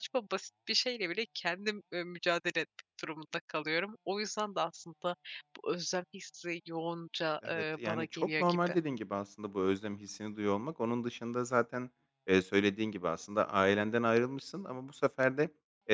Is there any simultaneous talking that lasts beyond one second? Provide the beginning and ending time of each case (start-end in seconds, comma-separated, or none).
7.4-8.8